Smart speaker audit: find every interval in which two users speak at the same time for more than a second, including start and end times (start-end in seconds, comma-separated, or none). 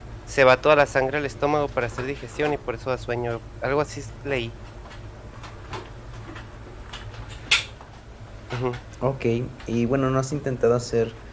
none